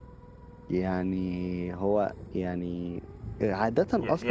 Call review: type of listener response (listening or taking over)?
taking over